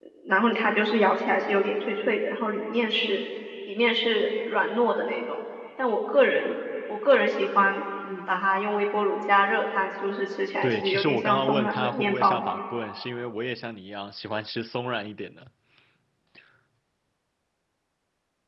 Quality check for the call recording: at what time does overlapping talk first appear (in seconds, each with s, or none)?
10.6 s